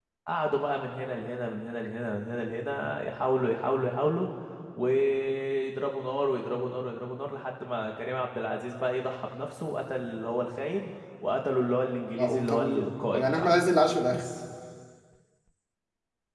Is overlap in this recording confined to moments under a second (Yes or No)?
No